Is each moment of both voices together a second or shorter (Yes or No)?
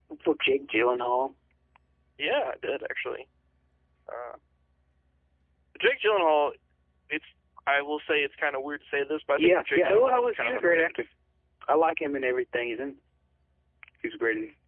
No